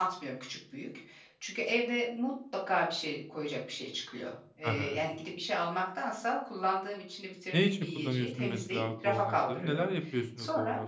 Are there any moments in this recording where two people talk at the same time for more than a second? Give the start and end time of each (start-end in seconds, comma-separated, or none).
7.5-9.9